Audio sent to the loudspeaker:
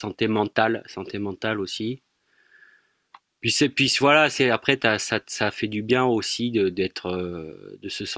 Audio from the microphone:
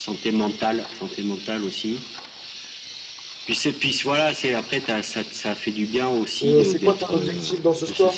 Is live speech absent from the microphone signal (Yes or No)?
No